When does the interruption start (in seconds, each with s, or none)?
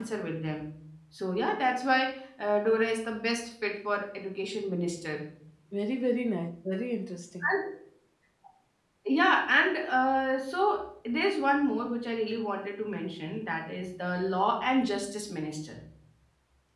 none